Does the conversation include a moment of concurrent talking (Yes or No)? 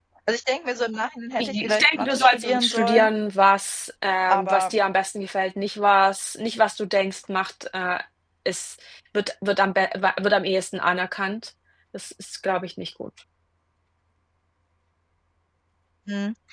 Yes